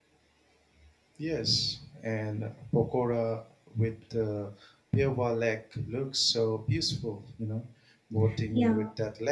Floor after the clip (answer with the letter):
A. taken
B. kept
B